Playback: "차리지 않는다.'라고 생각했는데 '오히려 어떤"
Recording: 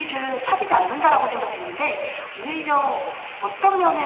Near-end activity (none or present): none